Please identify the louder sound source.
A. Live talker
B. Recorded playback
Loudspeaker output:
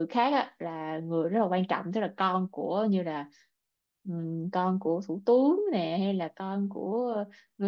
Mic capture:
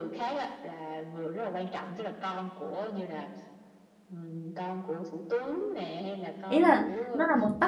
A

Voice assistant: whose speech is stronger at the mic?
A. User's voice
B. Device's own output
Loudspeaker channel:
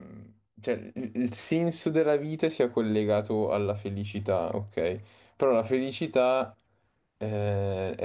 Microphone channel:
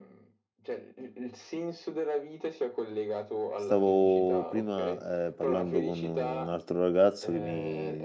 A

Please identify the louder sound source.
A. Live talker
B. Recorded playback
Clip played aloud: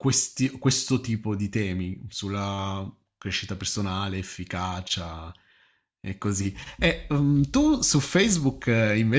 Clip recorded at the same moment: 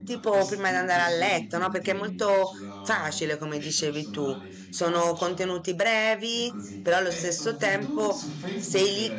A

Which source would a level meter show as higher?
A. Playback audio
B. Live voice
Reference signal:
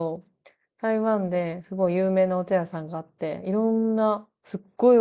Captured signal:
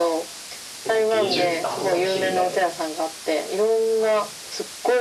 A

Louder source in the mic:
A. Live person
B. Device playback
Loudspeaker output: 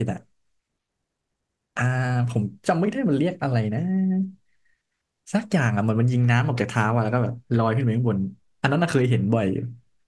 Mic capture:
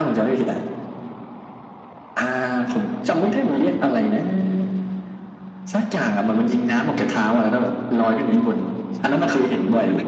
B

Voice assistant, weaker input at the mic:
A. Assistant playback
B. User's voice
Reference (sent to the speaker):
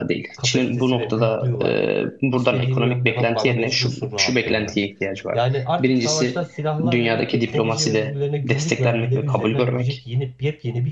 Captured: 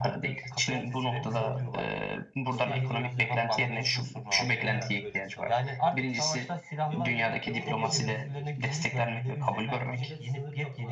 B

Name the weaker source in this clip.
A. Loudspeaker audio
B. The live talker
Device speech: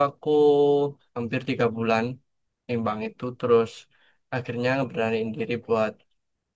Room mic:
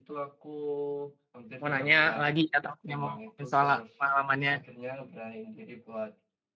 A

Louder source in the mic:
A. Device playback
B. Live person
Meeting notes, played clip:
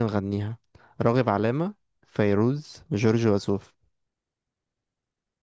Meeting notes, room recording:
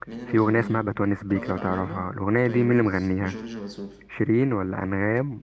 B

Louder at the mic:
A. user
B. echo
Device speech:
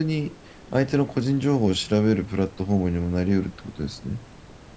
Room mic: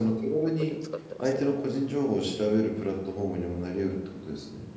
B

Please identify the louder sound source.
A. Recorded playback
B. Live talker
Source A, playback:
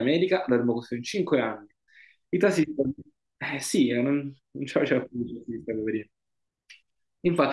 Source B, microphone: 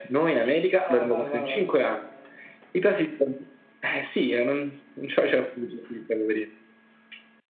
A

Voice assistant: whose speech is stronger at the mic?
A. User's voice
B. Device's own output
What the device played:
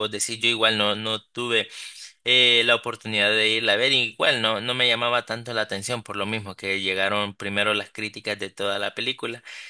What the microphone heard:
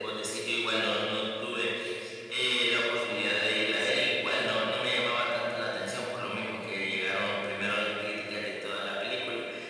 B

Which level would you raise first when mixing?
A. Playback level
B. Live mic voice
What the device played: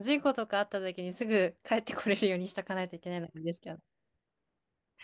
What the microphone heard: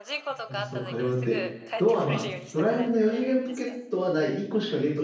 A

